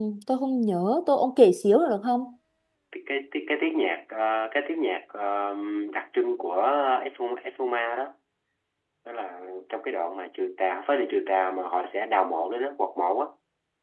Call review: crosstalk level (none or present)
none